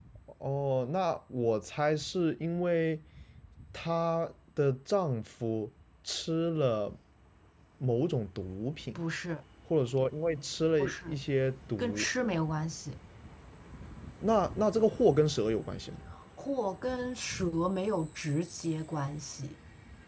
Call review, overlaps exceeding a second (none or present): none